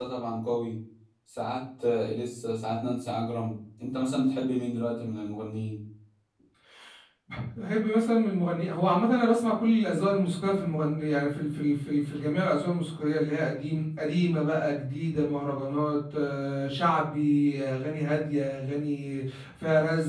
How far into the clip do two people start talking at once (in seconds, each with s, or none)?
none